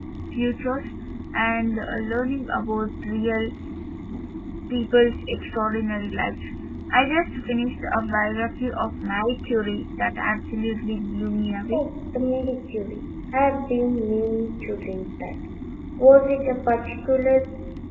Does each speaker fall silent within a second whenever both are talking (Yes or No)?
Yes